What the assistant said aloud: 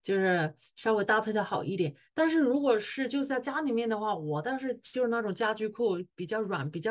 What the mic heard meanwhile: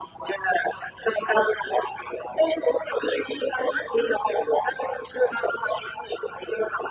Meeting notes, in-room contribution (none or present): none